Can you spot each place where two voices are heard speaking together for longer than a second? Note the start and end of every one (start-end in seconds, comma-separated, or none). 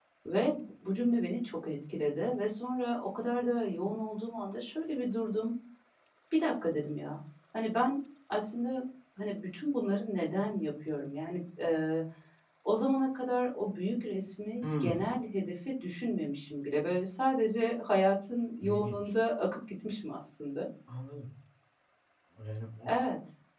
none